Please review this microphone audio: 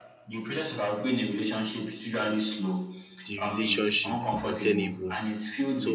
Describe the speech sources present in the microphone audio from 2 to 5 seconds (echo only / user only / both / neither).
both